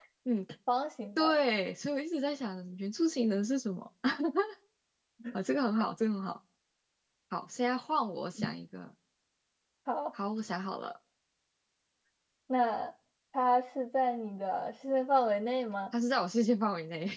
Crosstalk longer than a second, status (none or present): none